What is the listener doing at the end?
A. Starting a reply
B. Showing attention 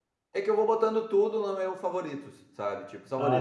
B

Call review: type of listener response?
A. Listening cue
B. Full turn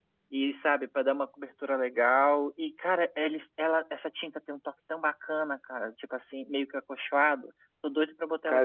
B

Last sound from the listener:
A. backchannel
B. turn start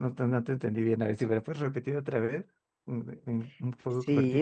B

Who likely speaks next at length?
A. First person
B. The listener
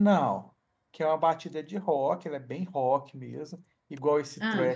A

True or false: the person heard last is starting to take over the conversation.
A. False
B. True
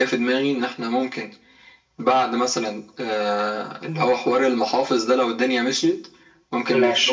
A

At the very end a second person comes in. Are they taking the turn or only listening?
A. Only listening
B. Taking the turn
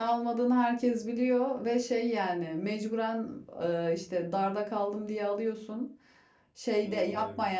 A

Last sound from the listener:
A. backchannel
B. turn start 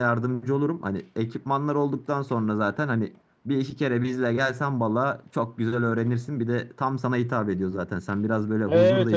B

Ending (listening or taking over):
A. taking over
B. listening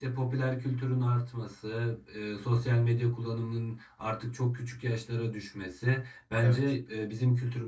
B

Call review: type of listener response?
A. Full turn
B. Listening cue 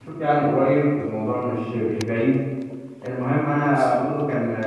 B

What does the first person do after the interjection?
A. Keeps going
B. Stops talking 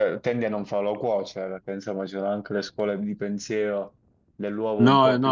B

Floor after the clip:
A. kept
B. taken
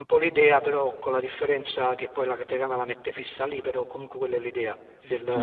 B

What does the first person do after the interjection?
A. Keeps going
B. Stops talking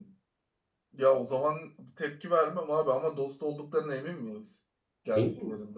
B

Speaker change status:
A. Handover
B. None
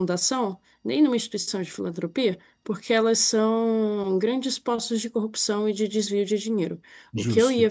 B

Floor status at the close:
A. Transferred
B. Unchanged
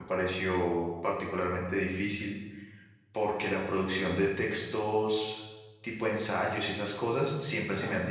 B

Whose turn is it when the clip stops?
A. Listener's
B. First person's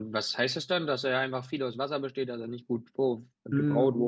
A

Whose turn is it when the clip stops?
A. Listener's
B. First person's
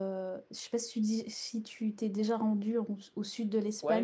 A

